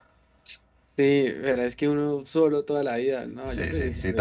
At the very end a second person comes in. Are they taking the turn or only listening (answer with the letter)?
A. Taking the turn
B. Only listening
A